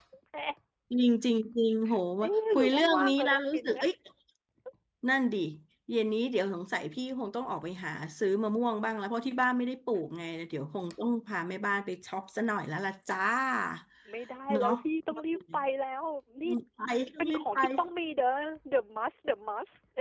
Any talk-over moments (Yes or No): Yes